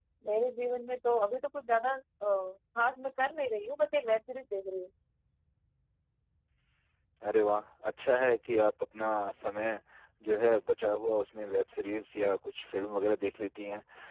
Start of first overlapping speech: none

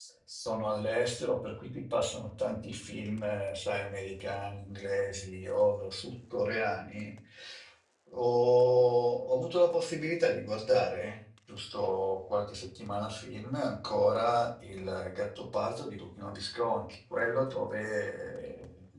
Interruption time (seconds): none

